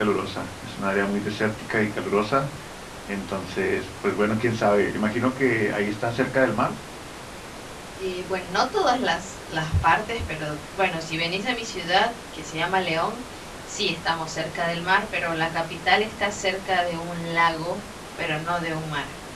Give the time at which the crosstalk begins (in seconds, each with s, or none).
none